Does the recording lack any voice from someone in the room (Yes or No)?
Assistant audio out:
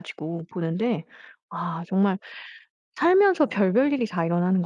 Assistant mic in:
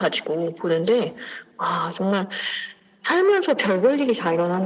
Yes